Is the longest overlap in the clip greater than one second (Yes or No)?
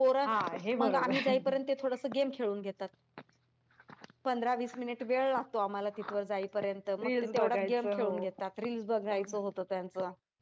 Yes